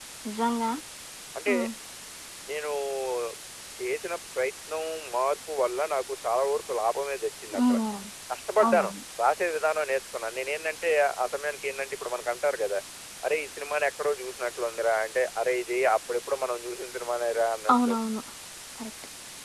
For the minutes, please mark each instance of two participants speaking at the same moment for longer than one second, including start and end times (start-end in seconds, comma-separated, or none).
none